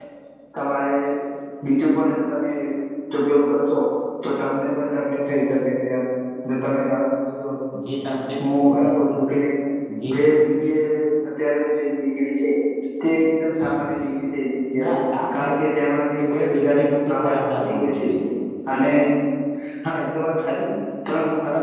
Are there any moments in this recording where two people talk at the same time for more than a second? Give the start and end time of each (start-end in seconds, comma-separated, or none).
16.3-18.1